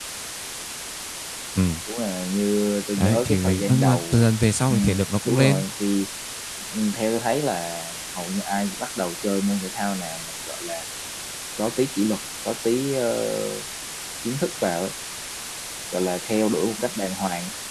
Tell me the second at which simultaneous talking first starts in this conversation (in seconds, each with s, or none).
3.0 s